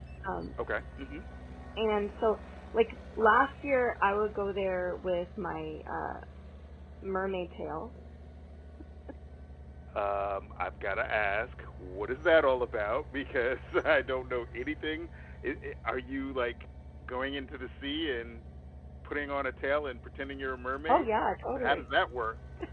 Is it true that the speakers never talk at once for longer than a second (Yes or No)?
Yes